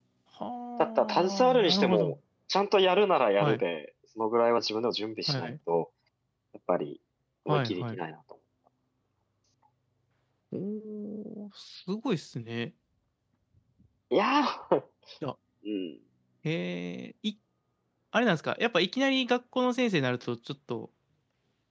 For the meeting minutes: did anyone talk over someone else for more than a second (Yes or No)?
Yes